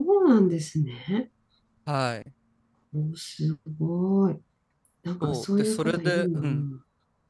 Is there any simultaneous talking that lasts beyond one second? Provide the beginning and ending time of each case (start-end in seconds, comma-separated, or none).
5.2-6.6